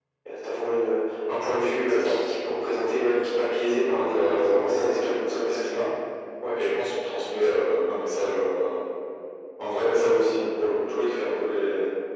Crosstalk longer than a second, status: present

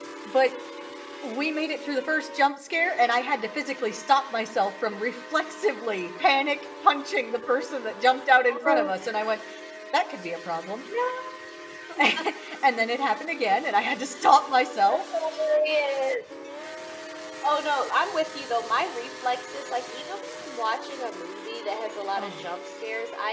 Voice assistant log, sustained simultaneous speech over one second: none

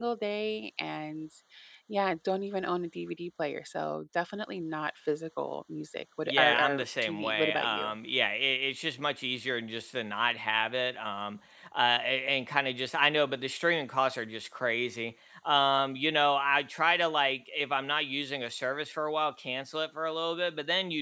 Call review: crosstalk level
present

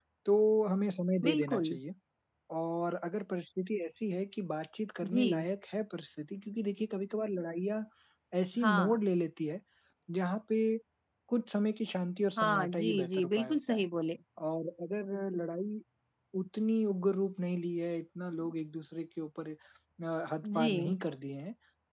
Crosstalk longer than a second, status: present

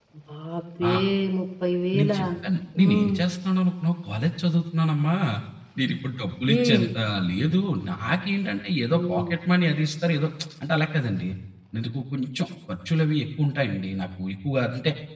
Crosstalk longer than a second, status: none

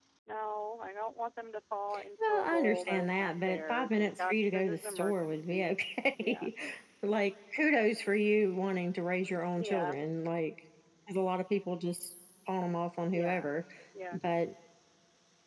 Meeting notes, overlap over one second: present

